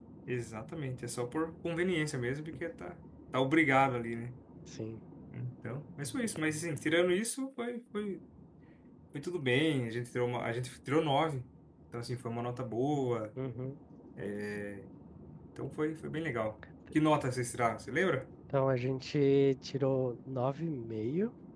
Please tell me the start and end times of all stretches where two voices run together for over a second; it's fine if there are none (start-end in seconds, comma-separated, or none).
none